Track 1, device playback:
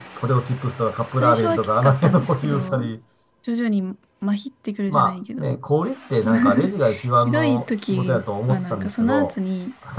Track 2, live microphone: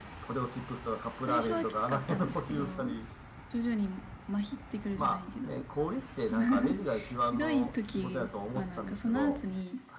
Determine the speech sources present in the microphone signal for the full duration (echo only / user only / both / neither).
echo only